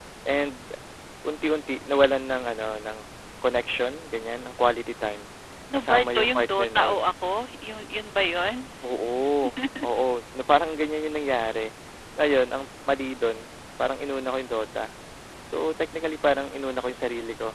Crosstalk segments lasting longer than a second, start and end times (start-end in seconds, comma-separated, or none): 5.7-7.0